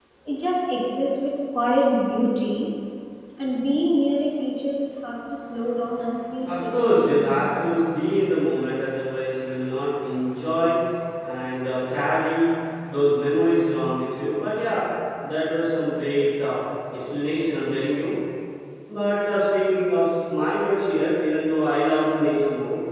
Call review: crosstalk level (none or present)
present